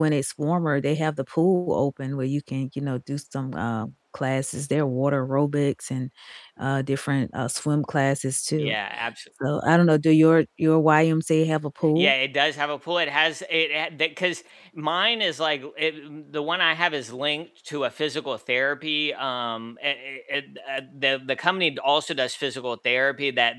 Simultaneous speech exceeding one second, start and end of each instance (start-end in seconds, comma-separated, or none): none